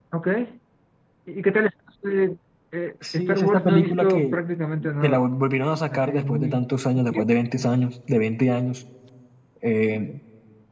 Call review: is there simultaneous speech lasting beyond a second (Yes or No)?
Yes